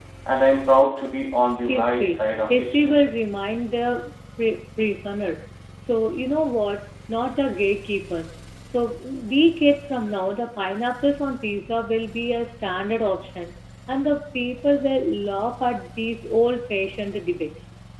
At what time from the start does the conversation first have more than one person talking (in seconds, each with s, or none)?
1.7 s